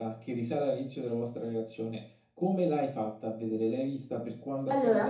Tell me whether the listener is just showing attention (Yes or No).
No